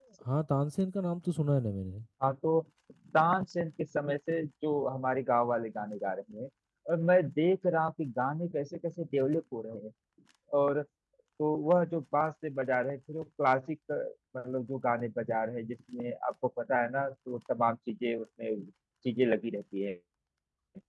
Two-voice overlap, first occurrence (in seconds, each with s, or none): none